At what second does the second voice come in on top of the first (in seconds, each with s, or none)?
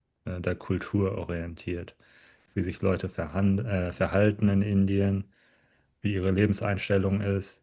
none